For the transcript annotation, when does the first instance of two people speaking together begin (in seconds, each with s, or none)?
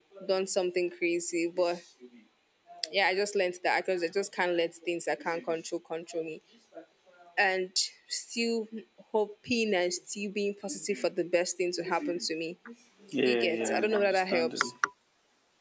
13.3 s